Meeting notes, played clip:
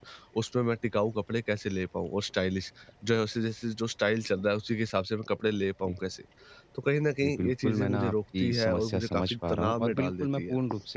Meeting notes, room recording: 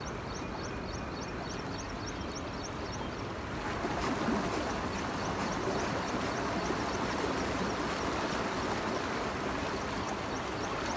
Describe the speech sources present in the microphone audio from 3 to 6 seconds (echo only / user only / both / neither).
neither